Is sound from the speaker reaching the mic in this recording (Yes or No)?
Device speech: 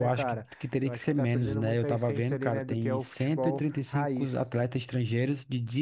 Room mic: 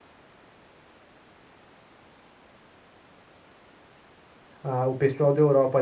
No